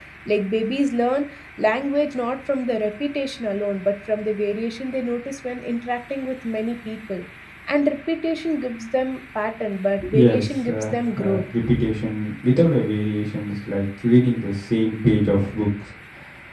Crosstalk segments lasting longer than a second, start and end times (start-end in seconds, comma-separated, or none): 10.1-11.4